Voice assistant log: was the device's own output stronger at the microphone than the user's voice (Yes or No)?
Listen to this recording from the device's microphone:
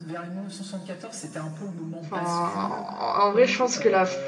No